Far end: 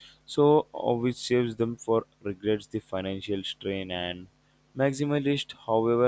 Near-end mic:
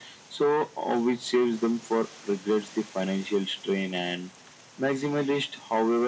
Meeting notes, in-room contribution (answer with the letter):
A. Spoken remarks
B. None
B